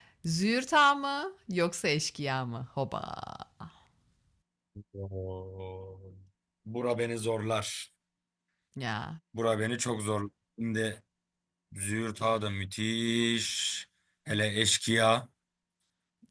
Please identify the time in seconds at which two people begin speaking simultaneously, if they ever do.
none

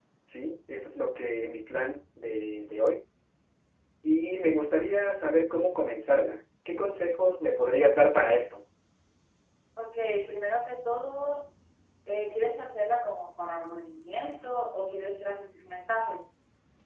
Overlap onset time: none

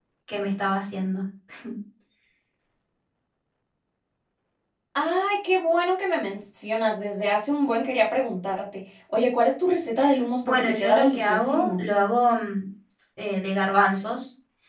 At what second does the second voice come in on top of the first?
10.4 s

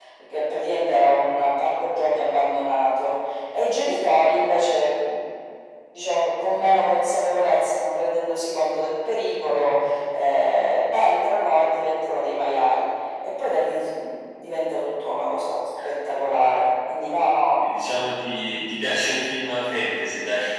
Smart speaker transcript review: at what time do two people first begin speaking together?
none

